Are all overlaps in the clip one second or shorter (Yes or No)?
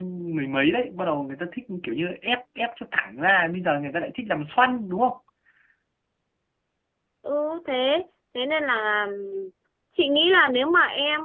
Yes